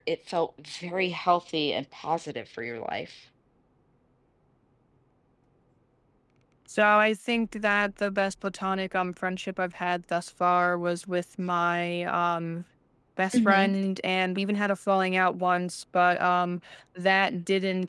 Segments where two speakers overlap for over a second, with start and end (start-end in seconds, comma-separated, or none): none